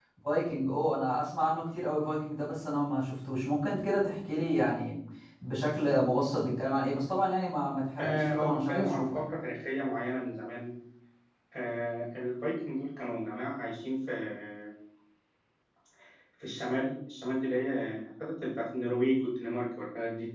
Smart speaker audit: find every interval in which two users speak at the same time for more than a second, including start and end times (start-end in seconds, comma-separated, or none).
8.0-9.2